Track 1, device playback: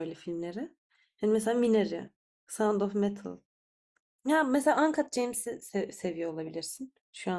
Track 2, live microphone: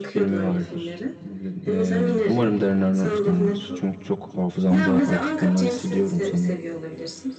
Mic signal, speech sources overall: both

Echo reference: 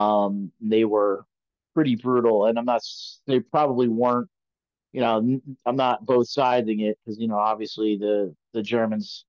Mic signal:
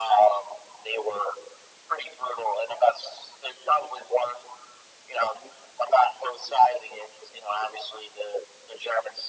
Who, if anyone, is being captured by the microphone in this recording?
echo only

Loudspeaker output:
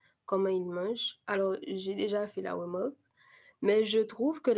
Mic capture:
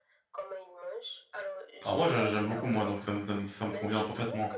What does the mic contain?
both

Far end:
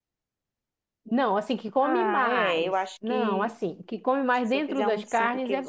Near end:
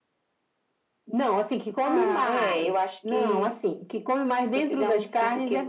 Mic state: echo only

